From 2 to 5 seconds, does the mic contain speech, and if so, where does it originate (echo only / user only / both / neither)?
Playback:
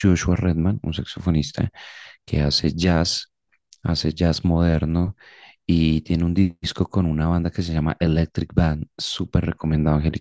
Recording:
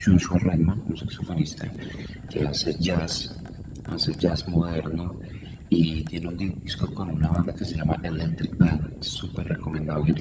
echo only